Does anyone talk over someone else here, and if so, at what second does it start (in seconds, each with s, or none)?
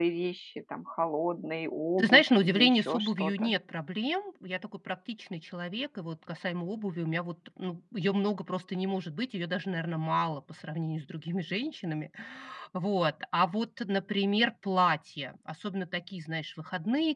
2.0 s